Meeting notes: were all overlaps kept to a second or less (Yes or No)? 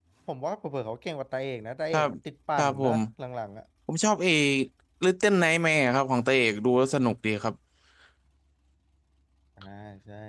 Yes